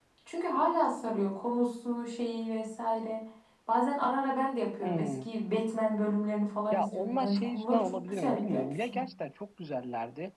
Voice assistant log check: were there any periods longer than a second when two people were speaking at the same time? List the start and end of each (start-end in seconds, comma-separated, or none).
6.7-9.0